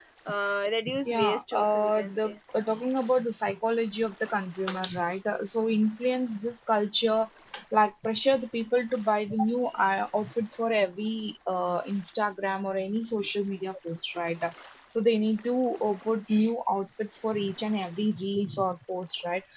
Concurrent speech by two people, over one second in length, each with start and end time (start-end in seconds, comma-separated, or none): 1.0-2.4